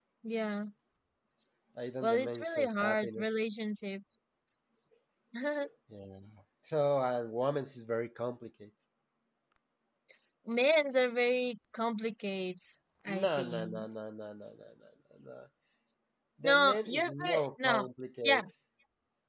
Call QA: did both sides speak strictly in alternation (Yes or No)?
No